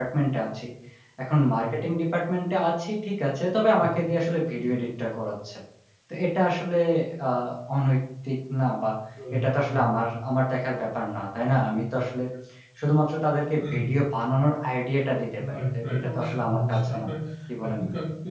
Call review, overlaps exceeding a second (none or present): present